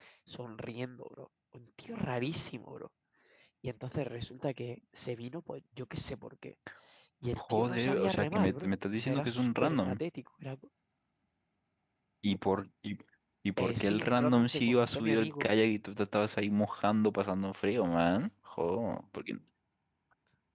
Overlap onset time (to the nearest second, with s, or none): 7 s